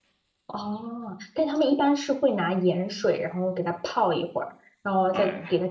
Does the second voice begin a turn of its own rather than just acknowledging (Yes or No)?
No